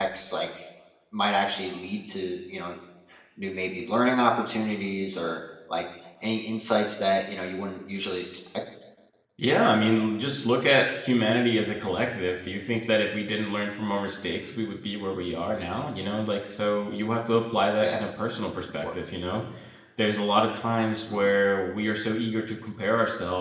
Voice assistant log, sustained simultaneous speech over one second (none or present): none